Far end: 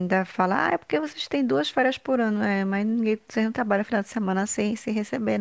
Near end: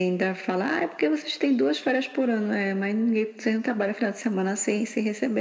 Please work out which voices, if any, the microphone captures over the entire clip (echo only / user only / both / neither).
echo only